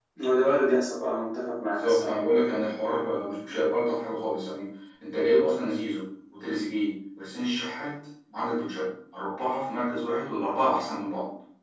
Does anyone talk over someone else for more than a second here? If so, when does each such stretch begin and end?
none

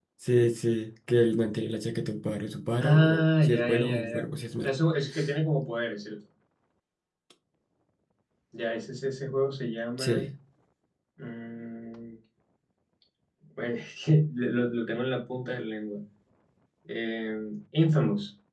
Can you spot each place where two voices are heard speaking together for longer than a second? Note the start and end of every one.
2.8-4.2

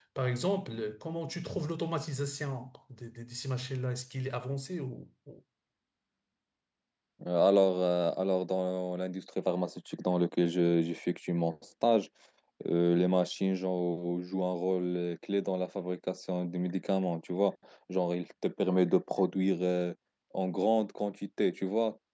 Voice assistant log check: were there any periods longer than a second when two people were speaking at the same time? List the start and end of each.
none

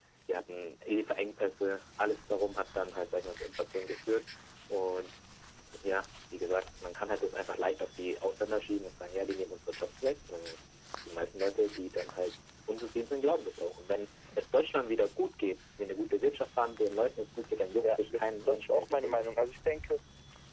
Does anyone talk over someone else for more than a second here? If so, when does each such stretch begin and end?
17.8-19.3

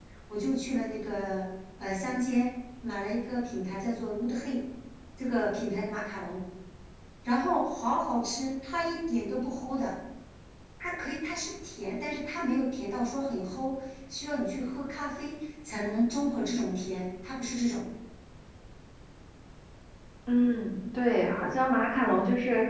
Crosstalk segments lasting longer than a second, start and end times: none

